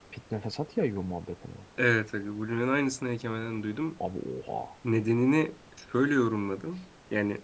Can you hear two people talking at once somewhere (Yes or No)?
No